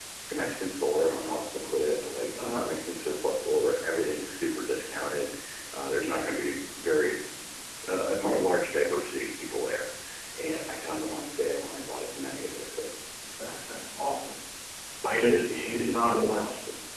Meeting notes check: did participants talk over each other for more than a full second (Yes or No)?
Yes